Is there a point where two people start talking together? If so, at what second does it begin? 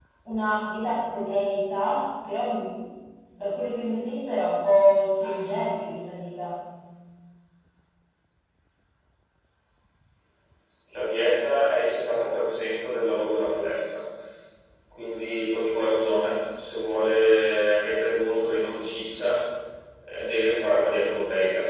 none

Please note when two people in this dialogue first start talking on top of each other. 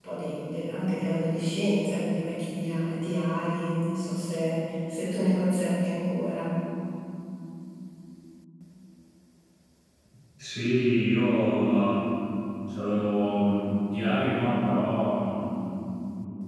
none

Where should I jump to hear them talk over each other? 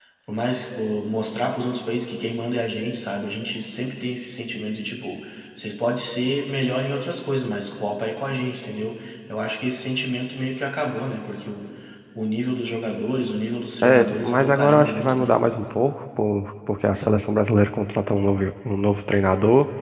13.8 s

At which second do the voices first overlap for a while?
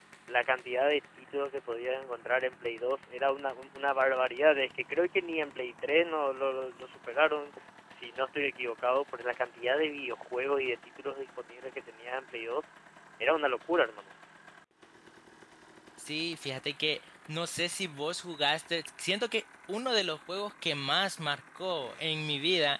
none

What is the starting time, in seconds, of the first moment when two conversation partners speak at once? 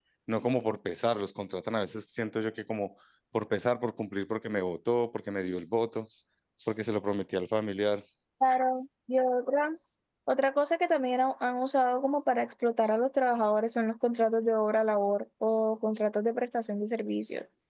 none

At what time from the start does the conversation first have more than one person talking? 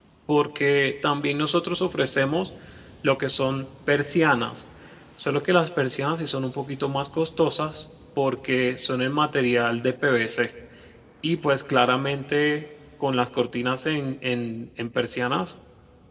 none

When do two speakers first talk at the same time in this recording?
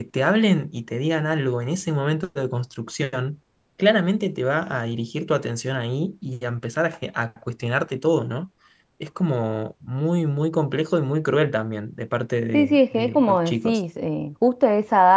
12.5 s

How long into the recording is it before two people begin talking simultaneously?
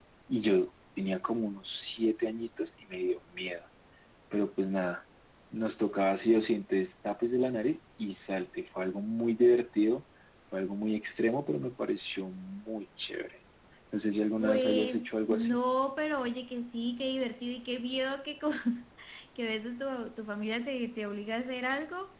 14.4 s

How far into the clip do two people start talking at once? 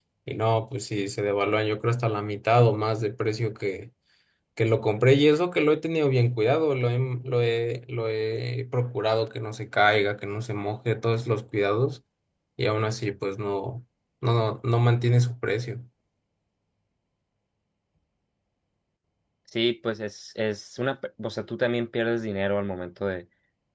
none

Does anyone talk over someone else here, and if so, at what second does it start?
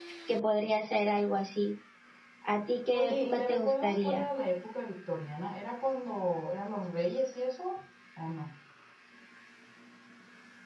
2.9 s

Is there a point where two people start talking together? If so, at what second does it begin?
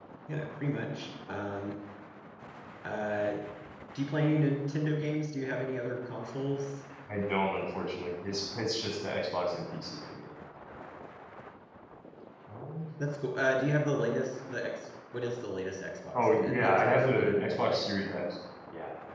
16.1 s

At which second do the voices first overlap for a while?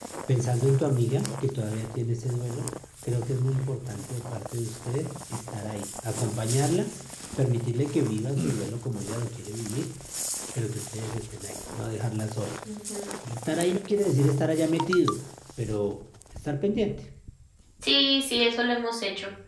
none

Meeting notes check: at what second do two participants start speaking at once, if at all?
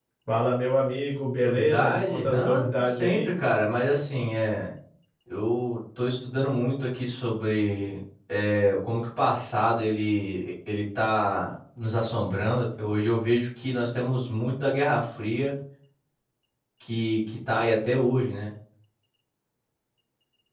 1.4 s

